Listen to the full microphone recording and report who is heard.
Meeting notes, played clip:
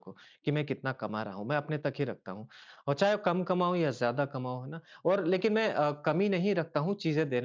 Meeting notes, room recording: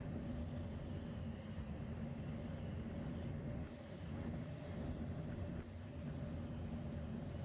neither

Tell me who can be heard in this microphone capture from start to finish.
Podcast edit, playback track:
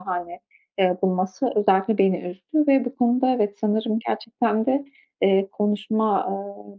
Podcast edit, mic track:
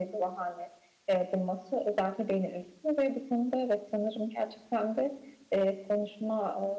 echo only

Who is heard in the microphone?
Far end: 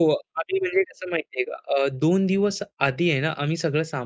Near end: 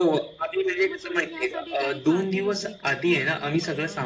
both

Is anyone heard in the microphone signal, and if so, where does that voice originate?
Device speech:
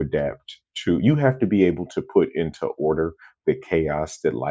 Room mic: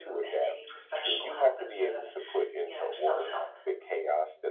both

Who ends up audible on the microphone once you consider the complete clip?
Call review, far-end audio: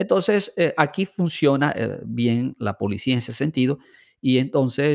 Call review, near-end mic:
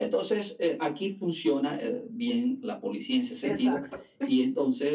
both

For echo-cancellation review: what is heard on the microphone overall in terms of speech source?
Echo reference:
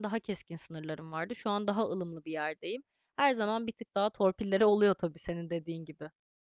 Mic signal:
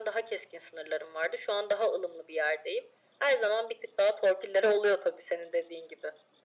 echo only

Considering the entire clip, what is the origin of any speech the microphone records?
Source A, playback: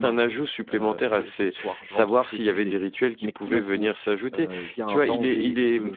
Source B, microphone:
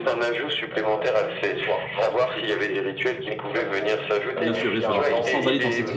both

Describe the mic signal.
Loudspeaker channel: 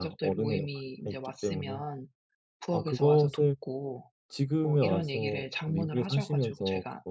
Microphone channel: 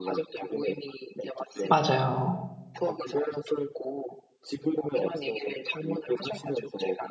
both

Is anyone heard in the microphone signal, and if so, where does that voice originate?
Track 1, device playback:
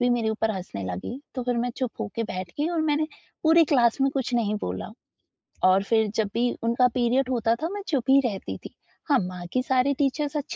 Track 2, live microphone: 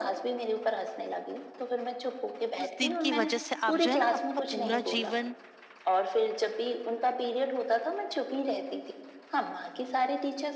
both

